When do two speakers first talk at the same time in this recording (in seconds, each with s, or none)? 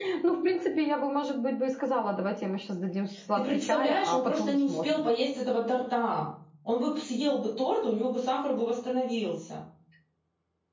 3.4 s